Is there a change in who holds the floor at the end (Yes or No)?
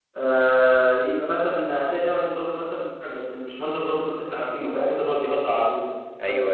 No